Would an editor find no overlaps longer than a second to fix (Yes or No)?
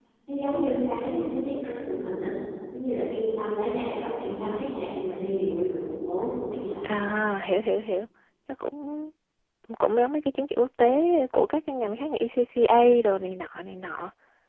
Yes